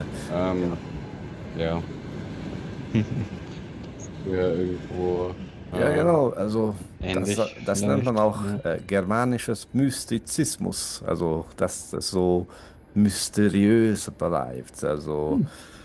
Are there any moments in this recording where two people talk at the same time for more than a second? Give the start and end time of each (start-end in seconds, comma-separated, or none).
7.1-8.6